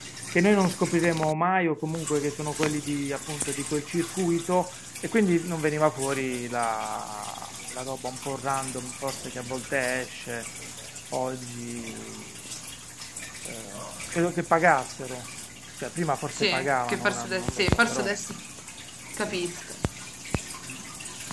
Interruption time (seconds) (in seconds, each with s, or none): 16.4 s